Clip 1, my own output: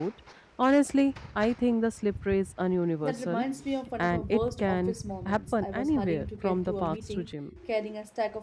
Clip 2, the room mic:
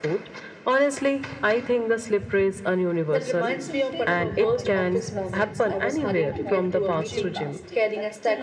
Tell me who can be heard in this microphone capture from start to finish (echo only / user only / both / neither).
both